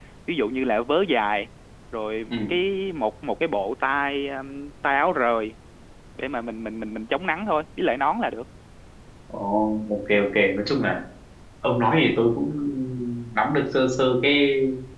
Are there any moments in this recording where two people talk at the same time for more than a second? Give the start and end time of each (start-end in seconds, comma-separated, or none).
none